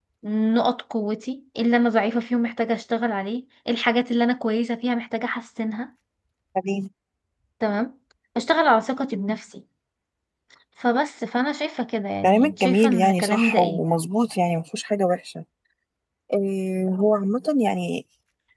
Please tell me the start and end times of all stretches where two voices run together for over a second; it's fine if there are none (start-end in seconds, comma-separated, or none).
12.2-13.8